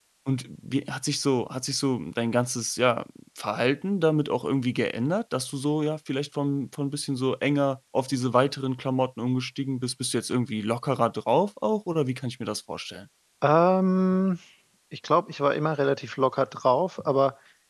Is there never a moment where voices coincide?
Yes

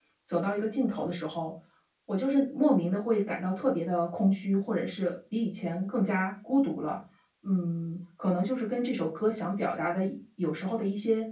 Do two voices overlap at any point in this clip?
No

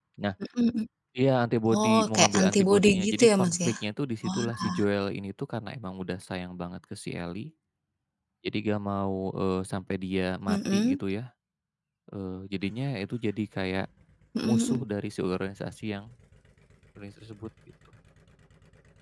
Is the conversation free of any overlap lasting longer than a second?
No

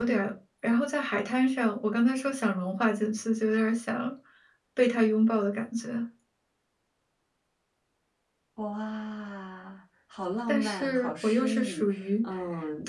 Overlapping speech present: Yes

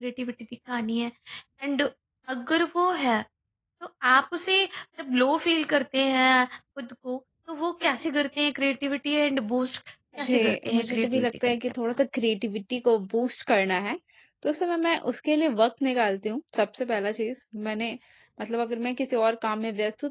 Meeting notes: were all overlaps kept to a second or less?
No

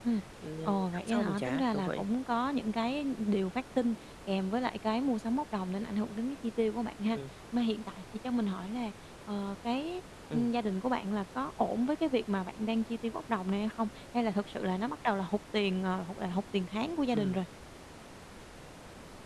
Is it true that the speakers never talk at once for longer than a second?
No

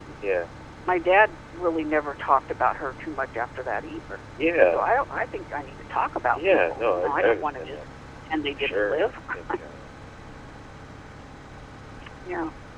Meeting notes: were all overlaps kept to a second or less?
No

